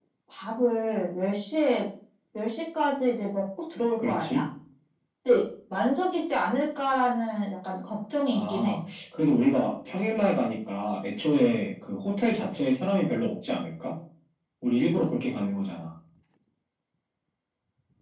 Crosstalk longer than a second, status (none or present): none